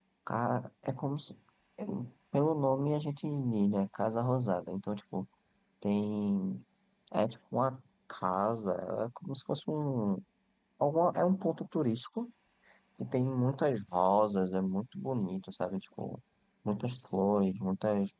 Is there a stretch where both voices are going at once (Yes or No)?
No